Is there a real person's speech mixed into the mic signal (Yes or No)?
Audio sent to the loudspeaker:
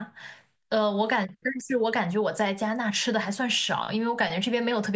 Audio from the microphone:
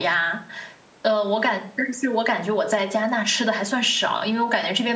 No